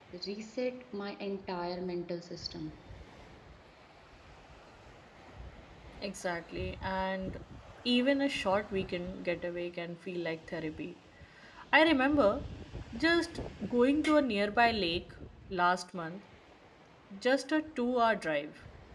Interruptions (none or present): none